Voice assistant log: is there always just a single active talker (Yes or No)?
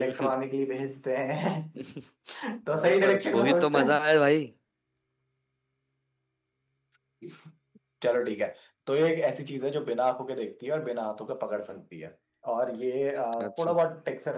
No